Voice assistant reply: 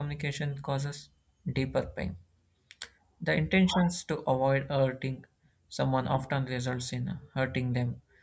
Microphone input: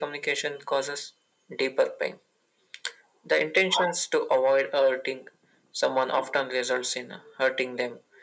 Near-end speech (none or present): none